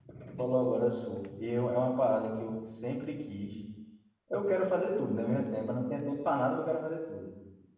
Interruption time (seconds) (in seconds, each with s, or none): none